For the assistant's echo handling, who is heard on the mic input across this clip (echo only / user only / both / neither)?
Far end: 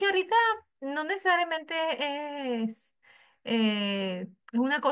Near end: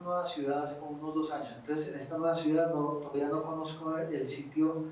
user only